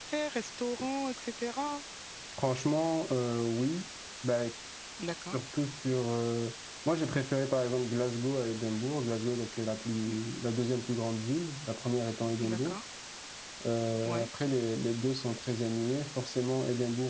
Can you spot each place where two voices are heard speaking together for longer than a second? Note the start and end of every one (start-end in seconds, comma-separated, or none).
none